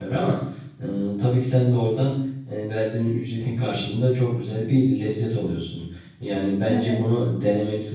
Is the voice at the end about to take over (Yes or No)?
No